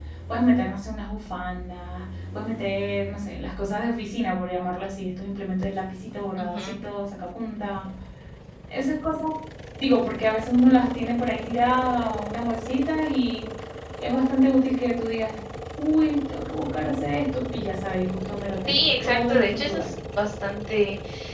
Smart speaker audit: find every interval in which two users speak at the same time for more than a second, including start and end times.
18.7-19.9

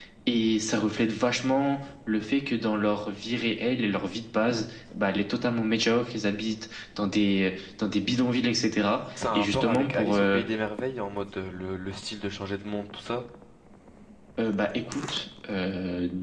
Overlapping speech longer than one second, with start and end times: 9.2-10.4

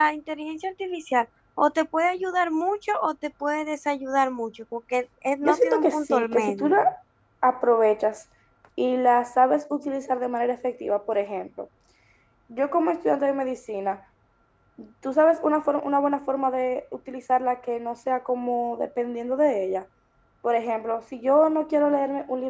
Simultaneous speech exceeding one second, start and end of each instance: 5.4-6.7

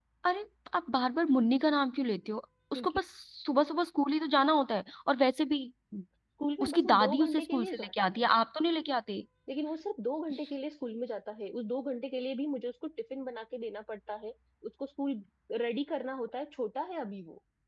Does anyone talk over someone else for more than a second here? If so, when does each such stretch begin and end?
6.6-8.2

